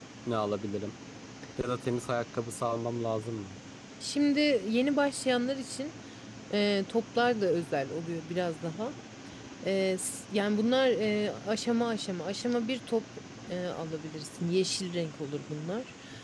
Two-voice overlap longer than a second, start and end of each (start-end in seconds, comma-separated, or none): none